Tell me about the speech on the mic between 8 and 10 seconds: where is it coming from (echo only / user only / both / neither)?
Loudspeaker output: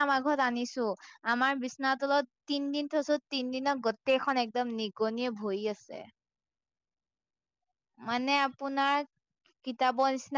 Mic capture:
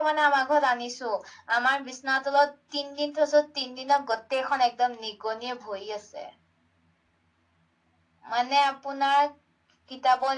echo only